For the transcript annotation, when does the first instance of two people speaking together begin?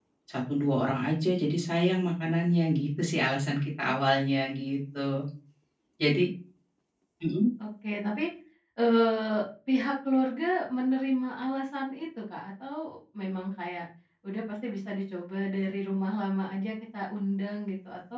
none

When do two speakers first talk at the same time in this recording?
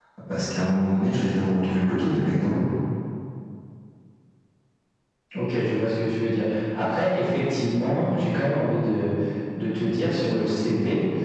none

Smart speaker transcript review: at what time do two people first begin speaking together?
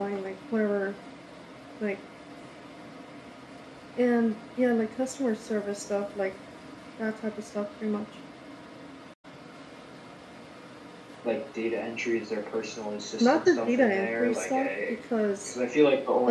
13.2 s

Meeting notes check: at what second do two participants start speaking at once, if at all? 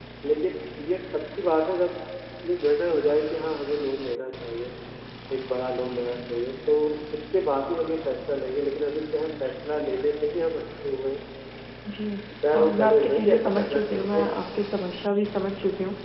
12.5 s

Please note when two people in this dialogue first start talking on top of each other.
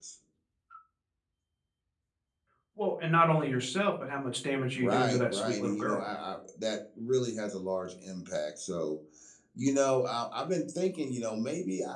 4.8 s

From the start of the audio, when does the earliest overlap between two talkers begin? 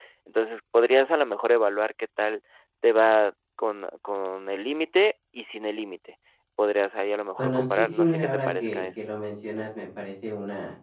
7.4 s

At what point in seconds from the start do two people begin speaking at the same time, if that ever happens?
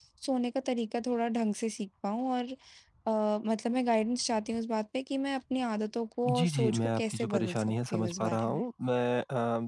6.2 s

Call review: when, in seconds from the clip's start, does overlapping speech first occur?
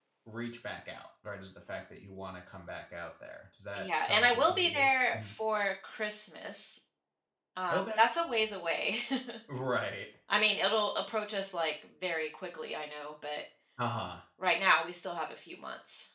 3.8 s

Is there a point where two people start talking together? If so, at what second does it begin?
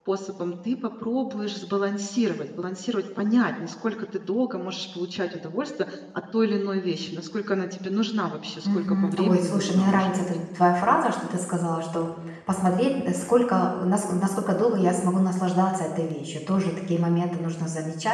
8.6 s

